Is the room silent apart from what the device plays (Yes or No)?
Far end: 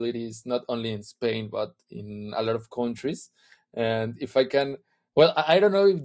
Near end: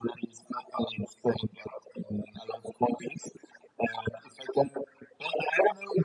Yes